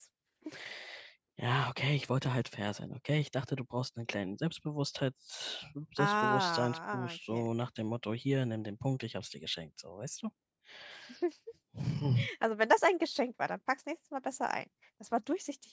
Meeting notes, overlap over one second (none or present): present